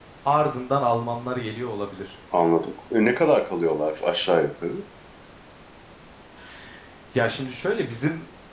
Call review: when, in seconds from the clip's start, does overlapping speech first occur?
none

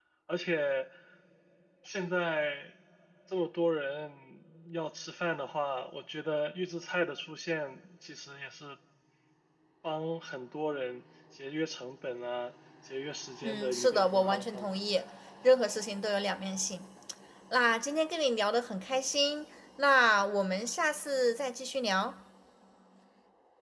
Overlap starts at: 13.4 s

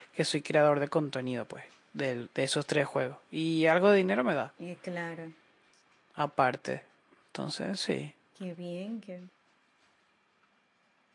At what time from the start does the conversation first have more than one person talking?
none

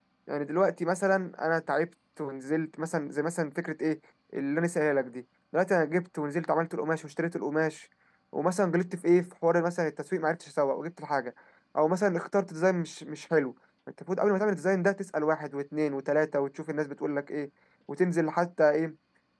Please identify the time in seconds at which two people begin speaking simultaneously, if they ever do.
none

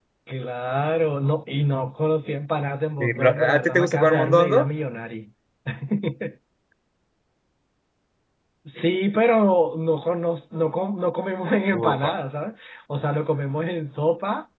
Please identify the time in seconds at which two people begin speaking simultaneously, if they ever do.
3.0 s

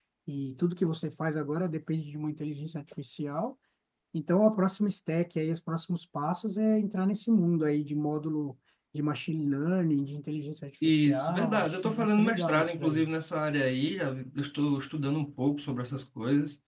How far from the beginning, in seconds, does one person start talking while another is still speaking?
10.8 s

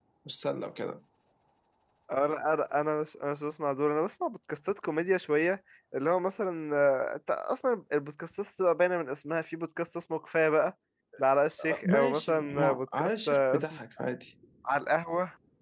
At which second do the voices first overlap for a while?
11.6 s

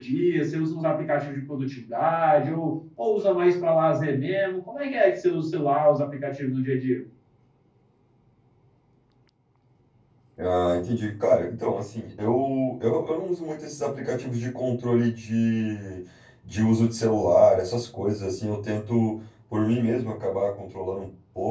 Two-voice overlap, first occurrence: none

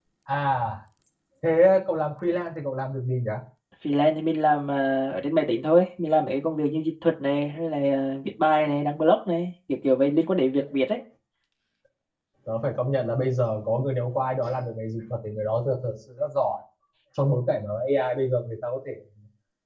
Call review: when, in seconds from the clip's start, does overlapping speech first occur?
none

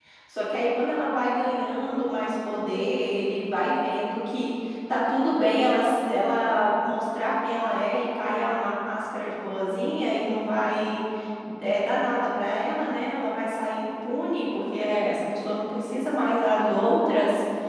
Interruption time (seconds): none

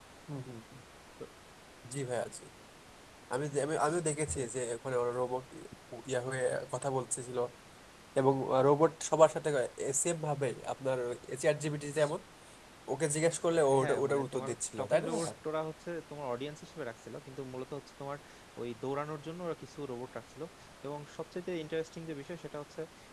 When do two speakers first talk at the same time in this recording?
13.5 s

